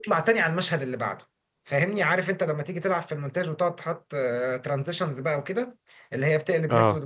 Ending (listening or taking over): listening